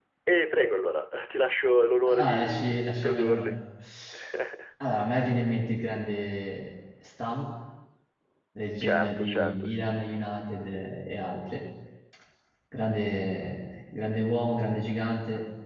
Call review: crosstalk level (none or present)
present